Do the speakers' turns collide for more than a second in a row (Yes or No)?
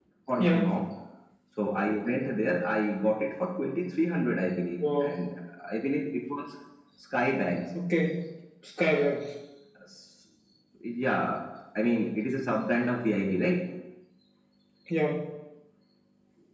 No